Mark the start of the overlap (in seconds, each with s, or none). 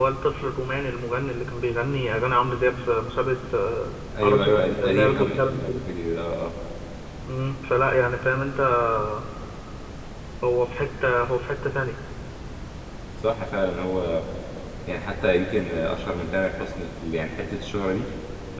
4.2 s